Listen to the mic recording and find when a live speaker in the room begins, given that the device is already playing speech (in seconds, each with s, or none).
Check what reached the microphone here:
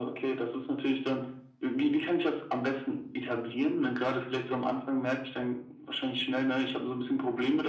none